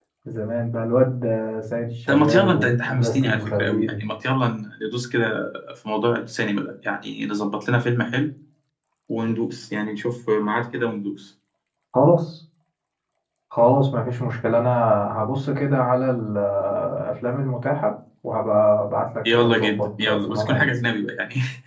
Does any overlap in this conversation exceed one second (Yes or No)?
Yes